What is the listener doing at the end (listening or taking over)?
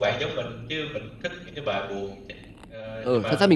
taking over